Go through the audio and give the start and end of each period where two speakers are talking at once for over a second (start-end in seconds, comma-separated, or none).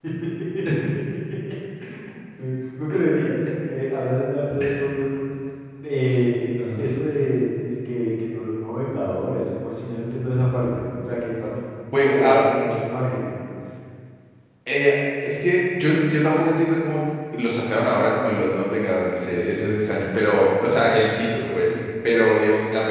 none